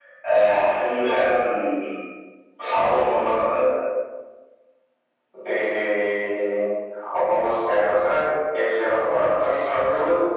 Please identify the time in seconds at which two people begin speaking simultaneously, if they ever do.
none

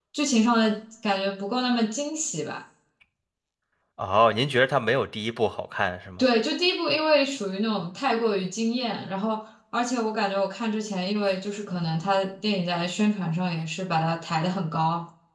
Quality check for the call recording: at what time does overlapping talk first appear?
none

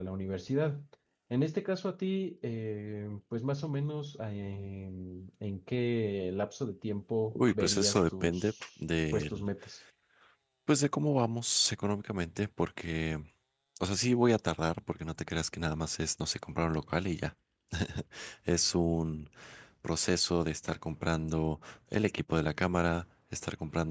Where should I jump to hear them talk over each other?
7.3 s

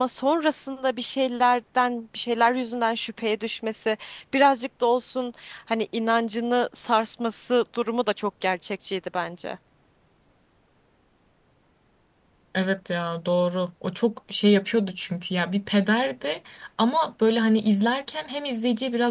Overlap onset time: none

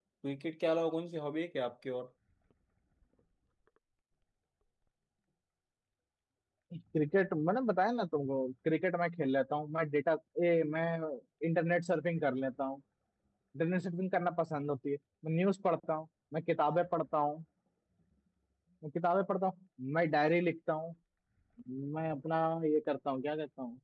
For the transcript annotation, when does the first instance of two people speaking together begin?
none

